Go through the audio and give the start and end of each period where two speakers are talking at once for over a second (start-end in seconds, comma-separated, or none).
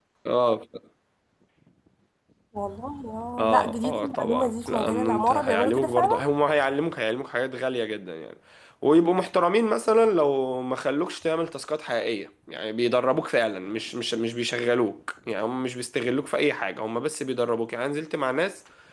3.4-6.2